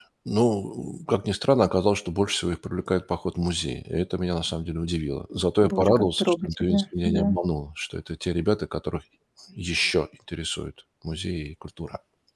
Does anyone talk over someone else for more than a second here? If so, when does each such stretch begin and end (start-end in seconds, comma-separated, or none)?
5.6-7.4